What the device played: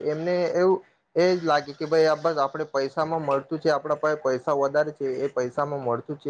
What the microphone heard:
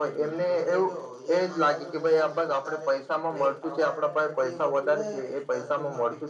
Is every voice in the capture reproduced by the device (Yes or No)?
No